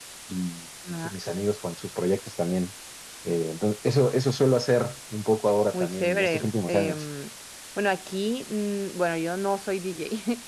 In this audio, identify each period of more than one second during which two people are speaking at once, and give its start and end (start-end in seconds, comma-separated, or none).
5.7-7.0